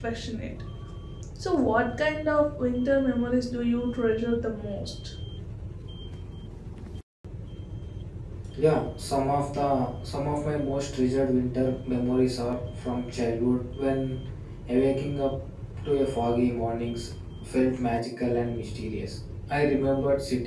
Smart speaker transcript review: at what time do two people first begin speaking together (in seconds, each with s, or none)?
none